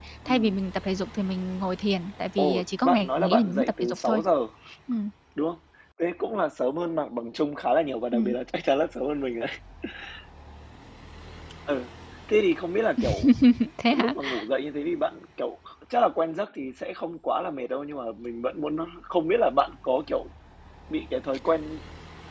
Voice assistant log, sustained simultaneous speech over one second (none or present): present